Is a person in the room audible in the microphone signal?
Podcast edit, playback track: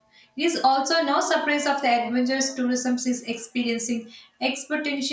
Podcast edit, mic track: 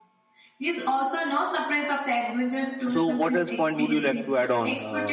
Yes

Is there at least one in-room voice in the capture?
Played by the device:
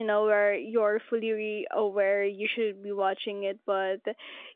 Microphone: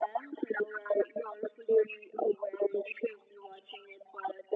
No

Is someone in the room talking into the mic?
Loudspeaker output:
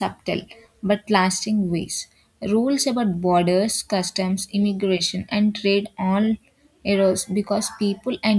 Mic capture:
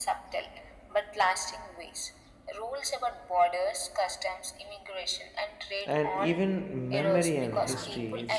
Yes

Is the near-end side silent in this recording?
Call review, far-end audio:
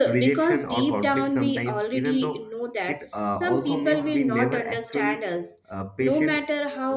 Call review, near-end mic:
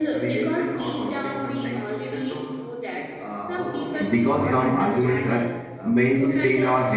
No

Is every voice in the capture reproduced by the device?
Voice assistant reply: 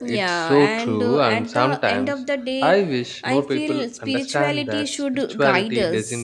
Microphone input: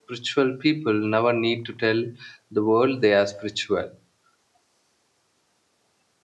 No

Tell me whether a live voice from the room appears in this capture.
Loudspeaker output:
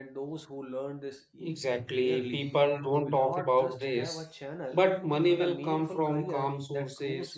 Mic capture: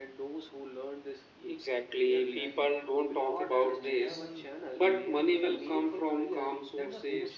Yes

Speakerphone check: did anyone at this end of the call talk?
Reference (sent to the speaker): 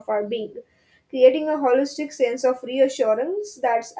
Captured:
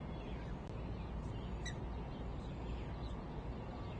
No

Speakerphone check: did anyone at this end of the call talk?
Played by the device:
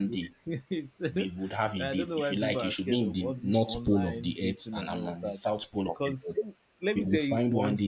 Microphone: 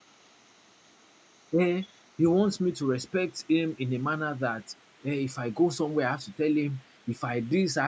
Yes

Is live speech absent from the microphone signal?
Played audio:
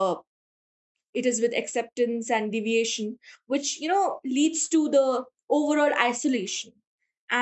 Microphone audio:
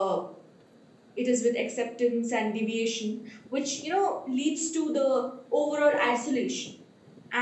Yes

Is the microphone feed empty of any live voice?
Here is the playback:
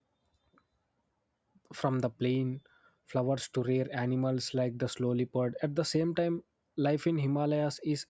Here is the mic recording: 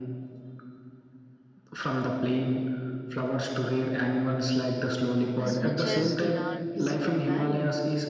No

